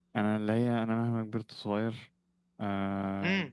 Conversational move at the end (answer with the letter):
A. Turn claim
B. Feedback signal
A